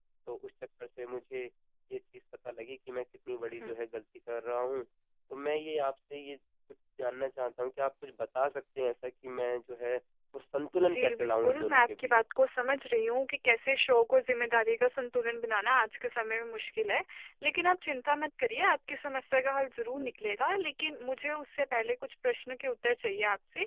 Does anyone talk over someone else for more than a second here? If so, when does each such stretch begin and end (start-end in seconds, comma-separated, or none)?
10.8-12.1